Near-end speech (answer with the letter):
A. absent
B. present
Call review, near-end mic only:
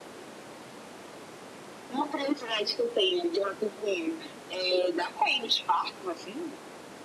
A